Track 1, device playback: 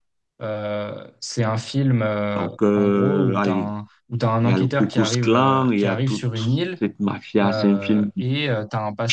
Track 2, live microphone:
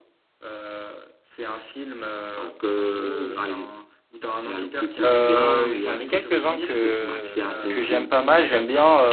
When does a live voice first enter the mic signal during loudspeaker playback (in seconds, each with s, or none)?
5.0 s